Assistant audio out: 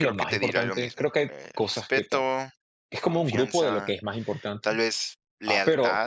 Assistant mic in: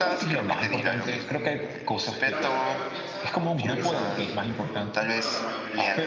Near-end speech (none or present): present